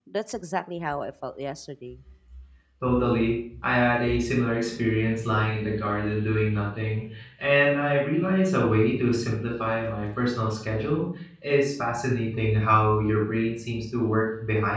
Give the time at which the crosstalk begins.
none

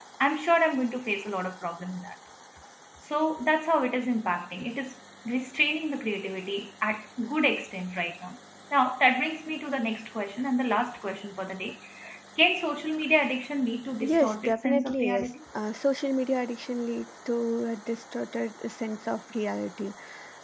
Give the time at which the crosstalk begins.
14.0 s

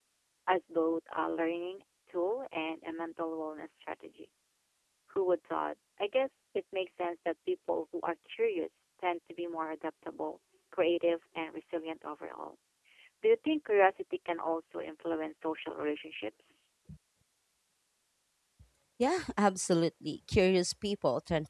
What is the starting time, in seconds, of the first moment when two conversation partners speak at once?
none

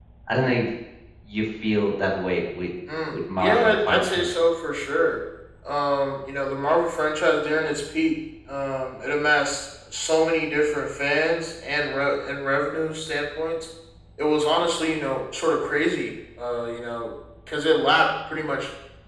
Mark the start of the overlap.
2.9 s

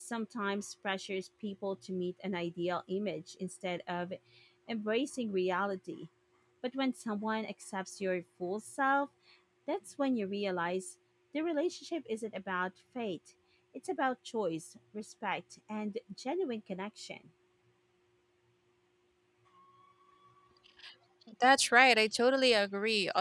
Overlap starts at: none

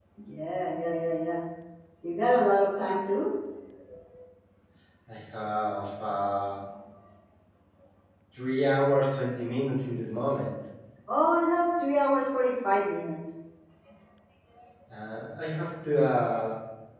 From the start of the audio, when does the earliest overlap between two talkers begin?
none

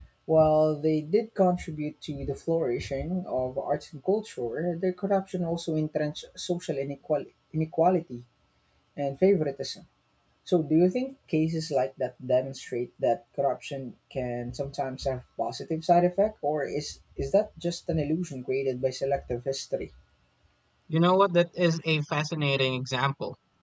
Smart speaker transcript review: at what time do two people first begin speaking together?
none

